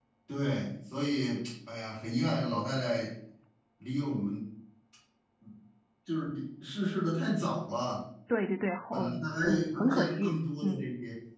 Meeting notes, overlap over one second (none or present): present